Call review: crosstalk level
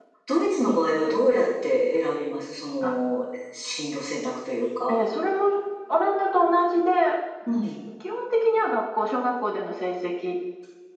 none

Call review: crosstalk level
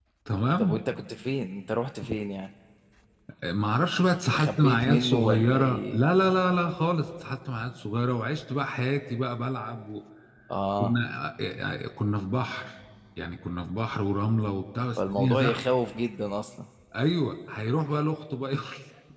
present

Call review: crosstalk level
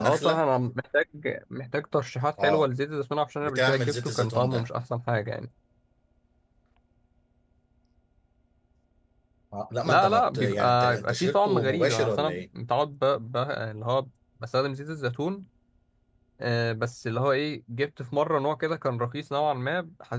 present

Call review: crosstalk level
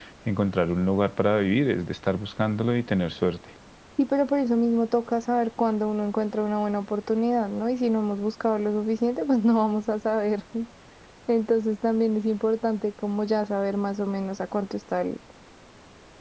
none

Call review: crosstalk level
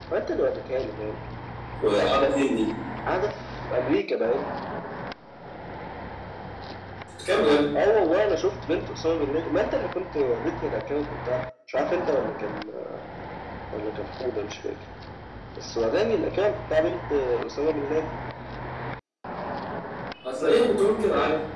none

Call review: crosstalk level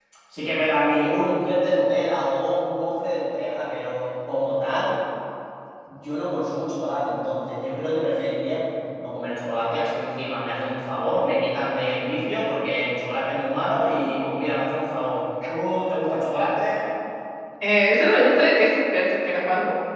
none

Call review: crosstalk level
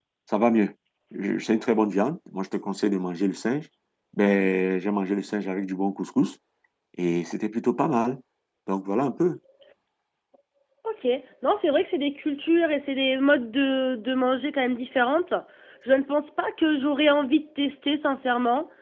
none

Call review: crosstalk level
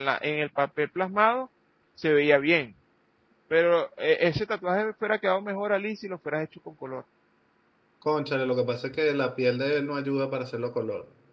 none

